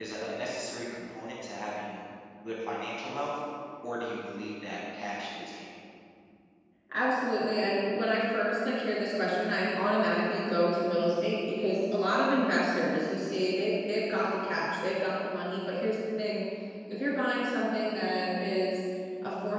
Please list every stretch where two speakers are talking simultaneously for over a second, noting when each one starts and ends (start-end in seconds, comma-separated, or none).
none